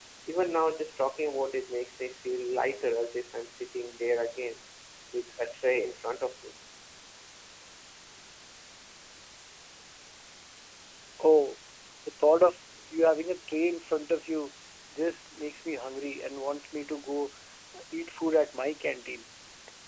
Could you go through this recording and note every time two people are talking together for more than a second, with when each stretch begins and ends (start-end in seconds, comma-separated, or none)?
none